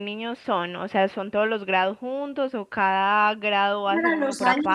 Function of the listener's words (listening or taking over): taking over